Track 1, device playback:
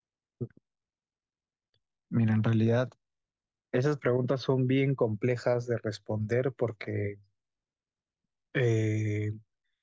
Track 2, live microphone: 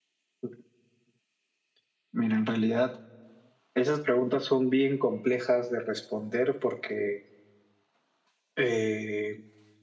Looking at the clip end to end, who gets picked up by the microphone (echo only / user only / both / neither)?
echo only